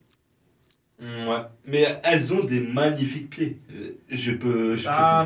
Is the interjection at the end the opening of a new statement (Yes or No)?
Yes